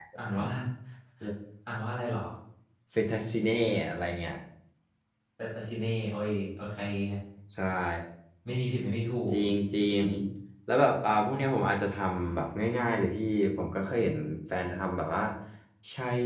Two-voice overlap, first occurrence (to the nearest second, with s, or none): none